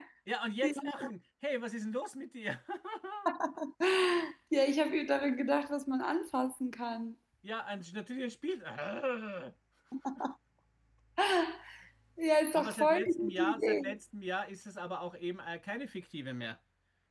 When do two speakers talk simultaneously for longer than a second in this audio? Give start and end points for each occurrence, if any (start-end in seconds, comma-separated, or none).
12.7-14.0